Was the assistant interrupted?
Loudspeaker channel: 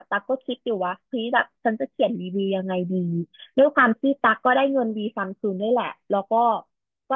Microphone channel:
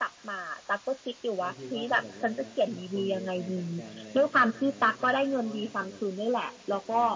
Yes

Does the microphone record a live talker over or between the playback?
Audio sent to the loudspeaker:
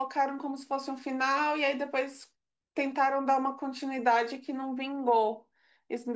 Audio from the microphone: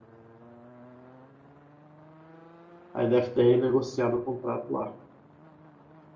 Yes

